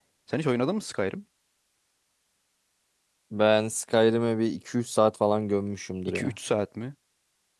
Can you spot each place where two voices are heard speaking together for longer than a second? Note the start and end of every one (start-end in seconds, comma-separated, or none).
none